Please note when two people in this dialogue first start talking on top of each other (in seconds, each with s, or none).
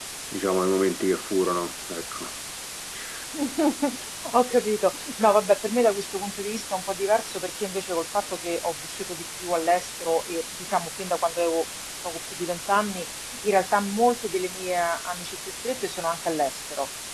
none